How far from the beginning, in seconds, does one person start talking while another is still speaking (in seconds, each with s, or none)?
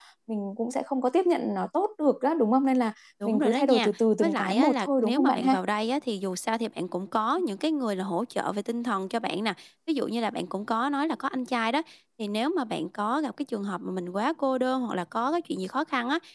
3.2 s